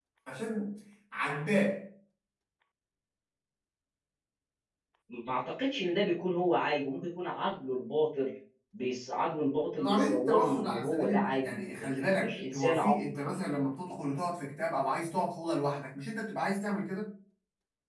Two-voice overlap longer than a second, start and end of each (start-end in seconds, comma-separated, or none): 9.8-12.9